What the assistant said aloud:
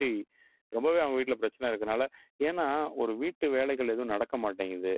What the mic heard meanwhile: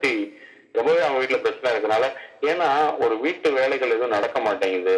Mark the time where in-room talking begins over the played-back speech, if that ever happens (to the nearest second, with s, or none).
none